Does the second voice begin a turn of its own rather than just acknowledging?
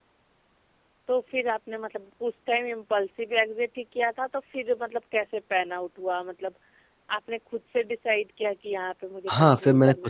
Yes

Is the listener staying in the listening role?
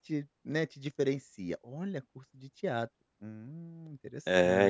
No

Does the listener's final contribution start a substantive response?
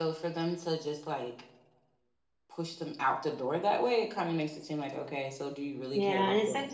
Yes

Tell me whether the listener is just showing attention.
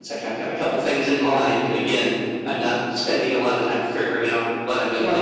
No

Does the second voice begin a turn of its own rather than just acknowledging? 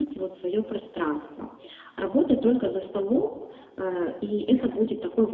No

